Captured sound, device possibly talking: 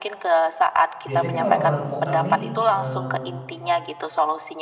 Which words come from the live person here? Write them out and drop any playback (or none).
biasanya kan orang-orang yang vokal nih, mmm,